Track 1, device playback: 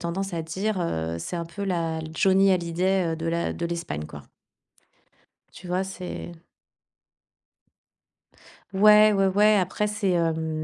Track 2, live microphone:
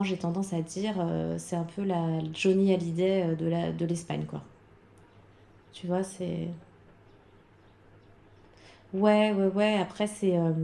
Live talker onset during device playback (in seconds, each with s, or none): none